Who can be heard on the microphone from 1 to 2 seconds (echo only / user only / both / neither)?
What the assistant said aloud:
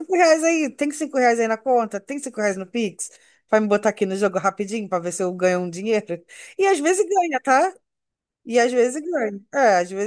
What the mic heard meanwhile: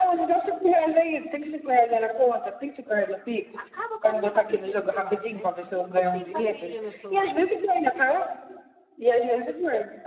echo only